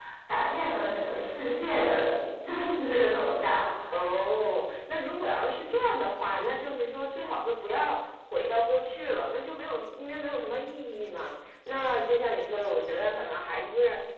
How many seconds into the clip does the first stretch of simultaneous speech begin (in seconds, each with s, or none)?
none